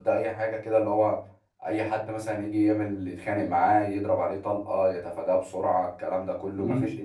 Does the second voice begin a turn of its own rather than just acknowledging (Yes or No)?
No